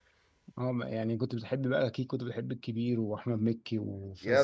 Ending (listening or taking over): taking over